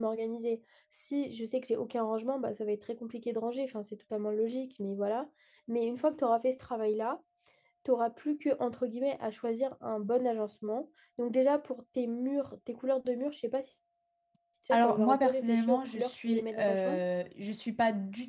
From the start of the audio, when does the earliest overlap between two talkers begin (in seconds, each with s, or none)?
14.7 s